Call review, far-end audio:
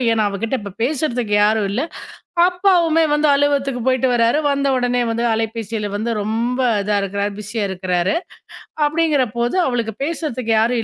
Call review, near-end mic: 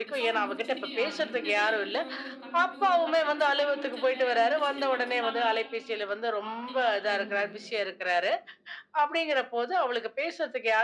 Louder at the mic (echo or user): echo